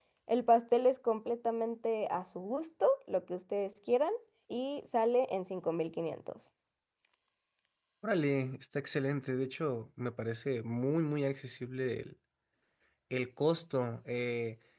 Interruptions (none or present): none